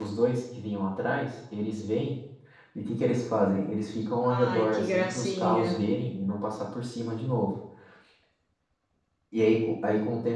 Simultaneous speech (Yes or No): Yes